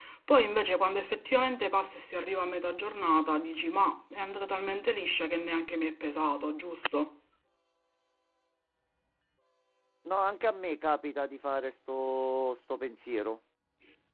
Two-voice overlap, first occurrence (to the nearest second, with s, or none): none